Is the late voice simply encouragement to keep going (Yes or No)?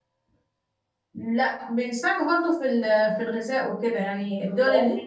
Yes